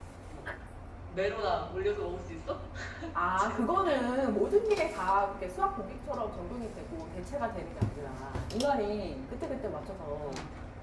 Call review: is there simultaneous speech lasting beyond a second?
No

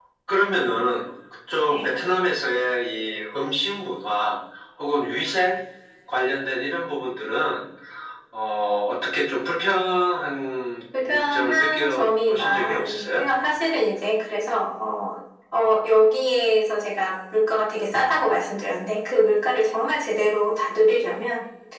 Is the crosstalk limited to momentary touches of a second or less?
No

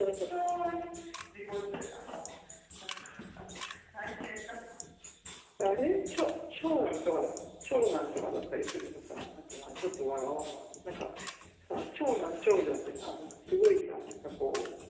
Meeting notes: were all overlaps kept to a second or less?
Yes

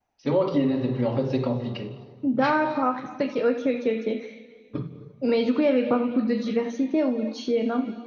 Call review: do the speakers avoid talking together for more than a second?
Yes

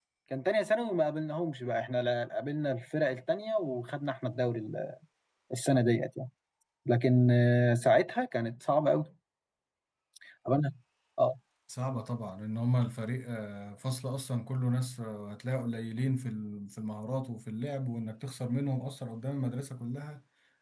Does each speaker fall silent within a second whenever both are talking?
Yes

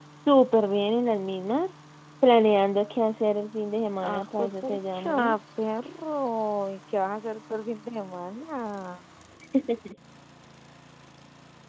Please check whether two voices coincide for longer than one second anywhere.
Yes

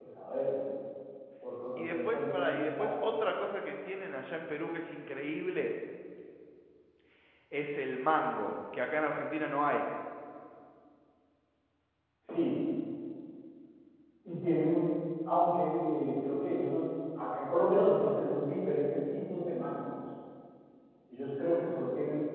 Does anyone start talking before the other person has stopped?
Yes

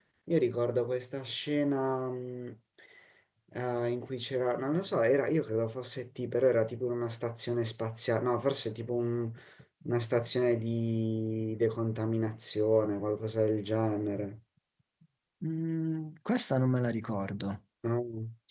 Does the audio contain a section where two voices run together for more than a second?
No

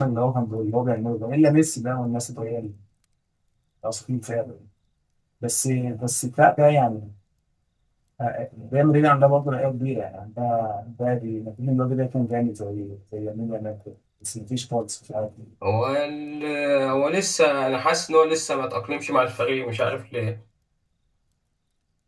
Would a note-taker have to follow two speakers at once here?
No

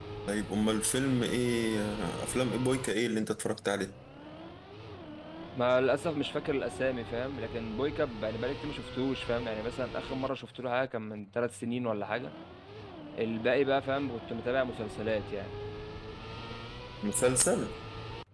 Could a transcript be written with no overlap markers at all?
Yes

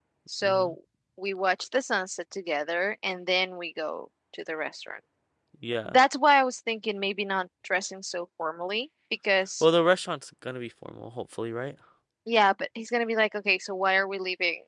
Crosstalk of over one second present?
No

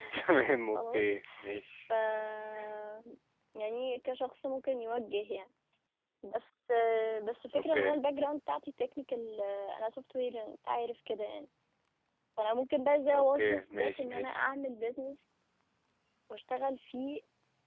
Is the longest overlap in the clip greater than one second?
Yes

